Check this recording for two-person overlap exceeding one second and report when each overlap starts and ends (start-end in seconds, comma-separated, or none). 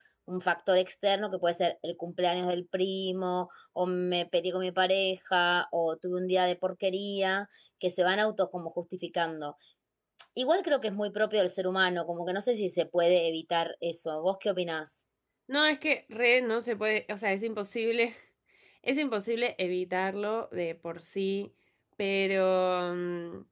none